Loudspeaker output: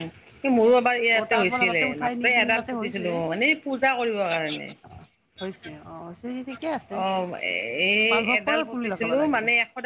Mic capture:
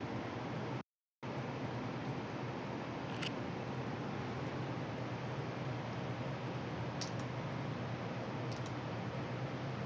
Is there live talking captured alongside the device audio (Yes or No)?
No